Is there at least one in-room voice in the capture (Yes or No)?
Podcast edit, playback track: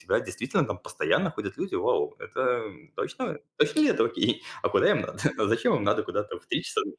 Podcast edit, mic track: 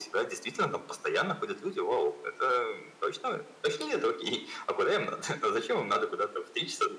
No